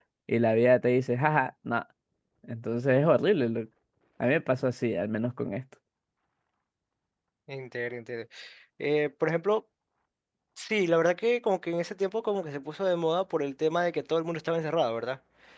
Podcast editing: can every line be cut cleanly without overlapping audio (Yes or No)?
Yes